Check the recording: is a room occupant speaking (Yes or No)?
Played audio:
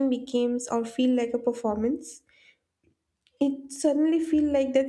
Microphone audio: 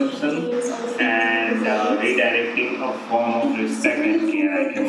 Yes